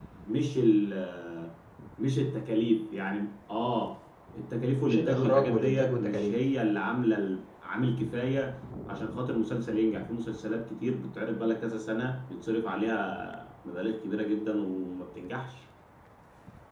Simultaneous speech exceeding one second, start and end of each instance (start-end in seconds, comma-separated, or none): 4.9-6.3